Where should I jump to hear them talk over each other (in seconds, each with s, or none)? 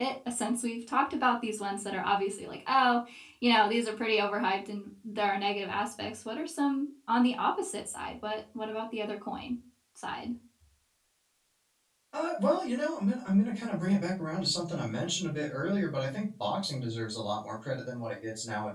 none